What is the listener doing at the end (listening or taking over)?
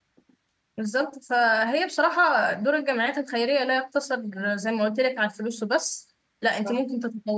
listening